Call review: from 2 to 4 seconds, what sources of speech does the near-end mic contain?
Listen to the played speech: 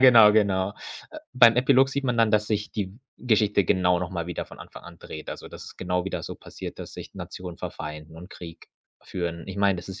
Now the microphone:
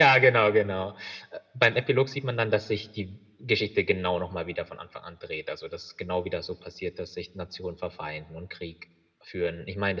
echo only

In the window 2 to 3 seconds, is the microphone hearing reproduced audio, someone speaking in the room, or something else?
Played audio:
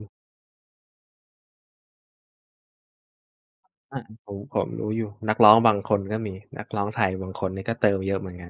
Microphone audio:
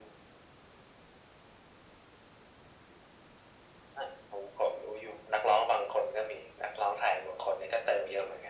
neither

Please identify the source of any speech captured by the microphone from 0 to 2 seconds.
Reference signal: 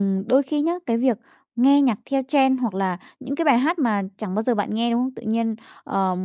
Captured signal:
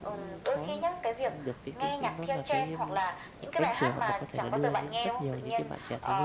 both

